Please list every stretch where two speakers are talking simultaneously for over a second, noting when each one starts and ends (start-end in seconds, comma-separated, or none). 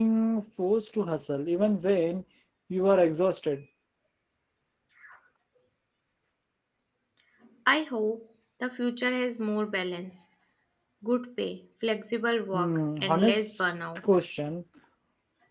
12.5-14.0